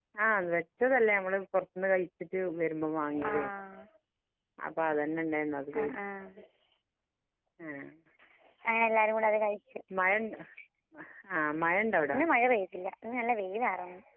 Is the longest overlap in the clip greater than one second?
No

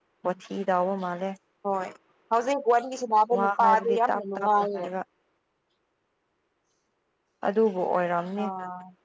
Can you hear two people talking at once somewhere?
Yes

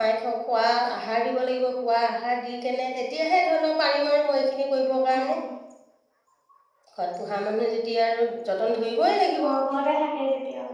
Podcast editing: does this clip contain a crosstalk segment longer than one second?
No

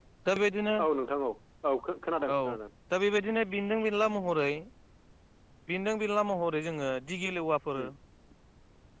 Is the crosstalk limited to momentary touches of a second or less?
Yes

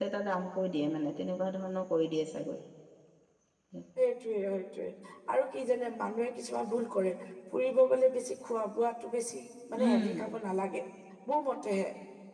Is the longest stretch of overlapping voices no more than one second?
Yes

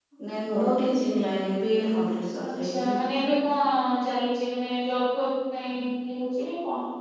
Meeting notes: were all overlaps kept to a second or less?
Yes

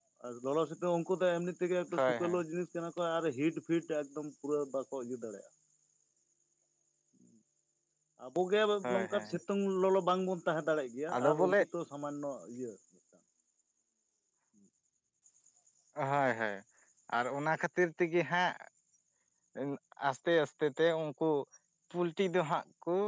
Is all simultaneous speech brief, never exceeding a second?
Yes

